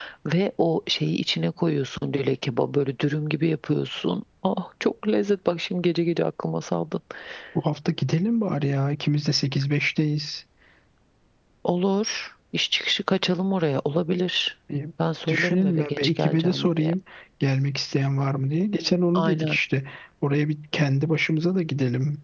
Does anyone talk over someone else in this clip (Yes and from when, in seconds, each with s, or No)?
Yes, from 15.3 s